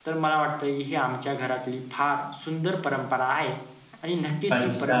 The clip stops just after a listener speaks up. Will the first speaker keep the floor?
Yes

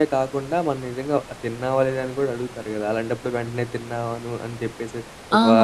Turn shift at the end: Yes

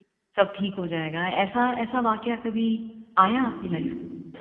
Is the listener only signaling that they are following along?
No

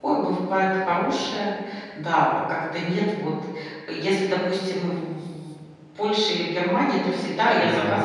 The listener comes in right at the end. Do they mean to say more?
No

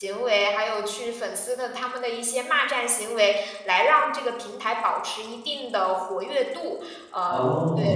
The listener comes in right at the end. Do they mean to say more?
No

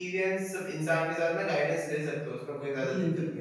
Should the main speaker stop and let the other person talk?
Yes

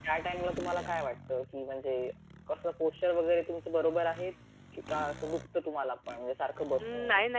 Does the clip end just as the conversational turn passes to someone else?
Yes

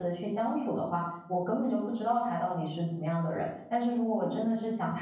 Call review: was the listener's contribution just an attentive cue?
Yes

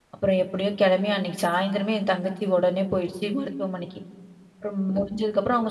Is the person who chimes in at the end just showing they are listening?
Yes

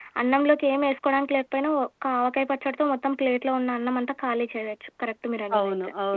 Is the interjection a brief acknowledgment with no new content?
No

